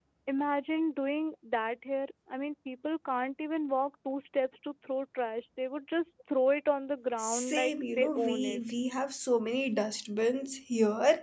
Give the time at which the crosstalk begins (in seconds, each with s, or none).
7.2 s